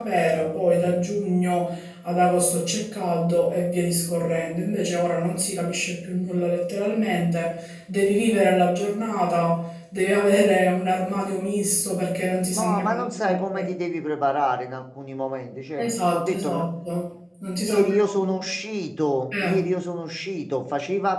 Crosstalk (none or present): present